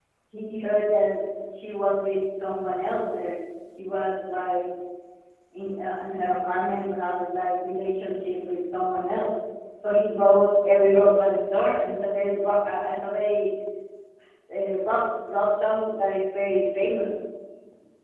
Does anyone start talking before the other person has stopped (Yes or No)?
No